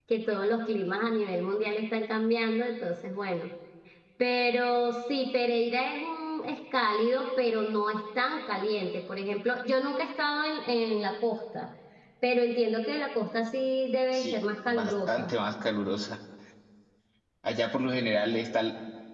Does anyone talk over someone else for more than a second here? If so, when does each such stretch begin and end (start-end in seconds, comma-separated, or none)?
14.1-15.3